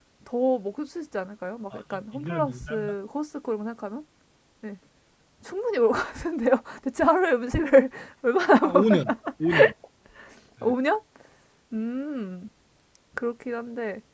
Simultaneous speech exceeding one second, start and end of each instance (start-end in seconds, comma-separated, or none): 1.7-2.9